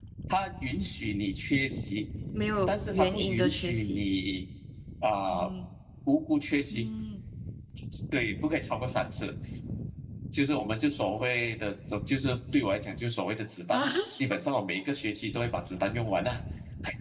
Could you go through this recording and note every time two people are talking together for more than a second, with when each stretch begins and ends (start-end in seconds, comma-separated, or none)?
2.7-4.0